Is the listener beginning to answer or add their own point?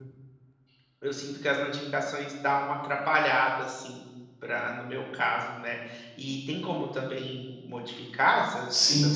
Yes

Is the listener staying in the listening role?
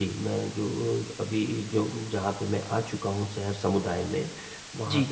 Yes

